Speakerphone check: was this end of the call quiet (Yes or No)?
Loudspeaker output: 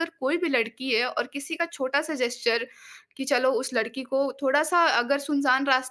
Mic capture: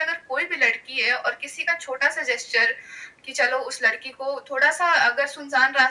Yes